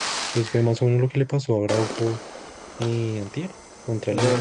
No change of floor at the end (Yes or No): No